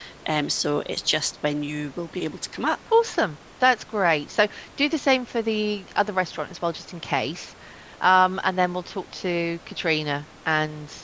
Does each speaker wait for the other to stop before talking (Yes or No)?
Yes